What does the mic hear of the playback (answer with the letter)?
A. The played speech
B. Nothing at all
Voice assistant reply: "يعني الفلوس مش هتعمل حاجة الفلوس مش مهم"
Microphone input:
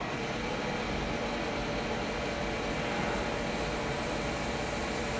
B